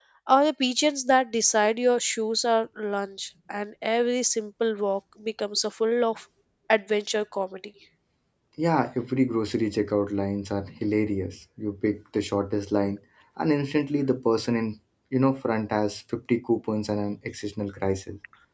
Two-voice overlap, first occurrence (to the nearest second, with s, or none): none